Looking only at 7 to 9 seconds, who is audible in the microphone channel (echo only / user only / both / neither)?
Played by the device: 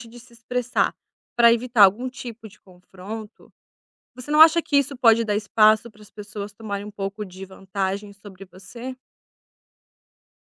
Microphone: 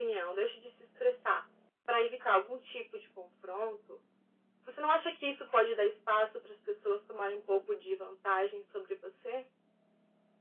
echo only